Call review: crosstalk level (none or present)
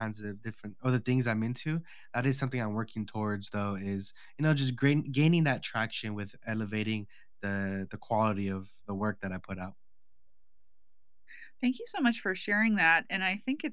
none